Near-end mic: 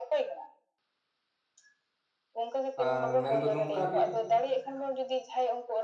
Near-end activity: present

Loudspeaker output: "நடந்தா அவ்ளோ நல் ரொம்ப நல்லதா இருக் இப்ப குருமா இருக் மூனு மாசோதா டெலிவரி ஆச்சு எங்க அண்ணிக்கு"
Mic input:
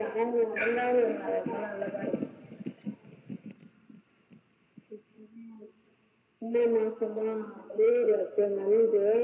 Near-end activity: none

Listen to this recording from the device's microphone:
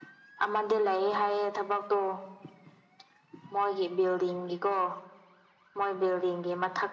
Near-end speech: none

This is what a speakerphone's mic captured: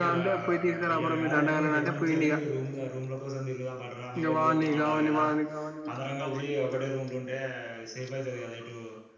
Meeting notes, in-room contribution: present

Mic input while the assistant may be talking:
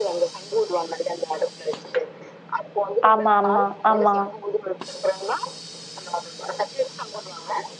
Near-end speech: present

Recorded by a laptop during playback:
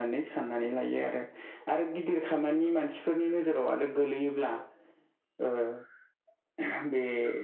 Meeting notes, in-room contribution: none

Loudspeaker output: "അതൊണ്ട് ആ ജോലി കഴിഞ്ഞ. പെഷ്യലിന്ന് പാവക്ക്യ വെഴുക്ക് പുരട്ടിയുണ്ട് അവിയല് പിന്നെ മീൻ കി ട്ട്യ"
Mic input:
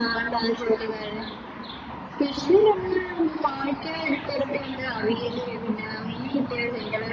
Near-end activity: none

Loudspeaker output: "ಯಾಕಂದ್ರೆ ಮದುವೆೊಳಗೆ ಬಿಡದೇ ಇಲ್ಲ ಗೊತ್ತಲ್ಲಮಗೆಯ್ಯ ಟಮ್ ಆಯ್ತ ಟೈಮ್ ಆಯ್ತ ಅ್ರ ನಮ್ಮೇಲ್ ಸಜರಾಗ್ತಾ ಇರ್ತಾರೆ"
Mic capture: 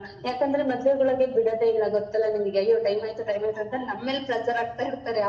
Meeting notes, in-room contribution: none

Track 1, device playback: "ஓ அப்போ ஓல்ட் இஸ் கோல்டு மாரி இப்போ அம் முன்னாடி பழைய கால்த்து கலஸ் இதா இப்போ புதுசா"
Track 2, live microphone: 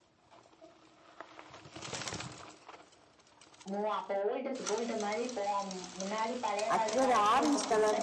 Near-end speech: present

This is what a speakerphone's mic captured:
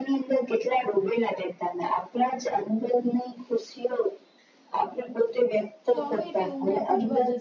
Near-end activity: present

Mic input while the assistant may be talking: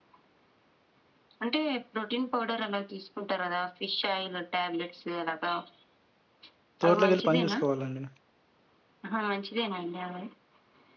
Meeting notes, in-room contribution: present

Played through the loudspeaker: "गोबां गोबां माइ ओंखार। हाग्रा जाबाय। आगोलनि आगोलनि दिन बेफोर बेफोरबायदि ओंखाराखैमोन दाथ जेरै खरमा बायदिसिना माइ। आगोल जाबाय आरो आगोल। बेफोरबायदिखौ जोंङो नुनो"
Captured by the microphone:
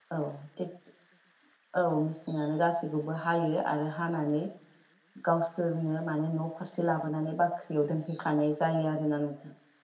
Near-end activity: present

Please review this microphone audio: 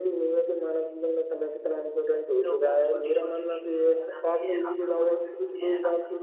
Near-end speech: present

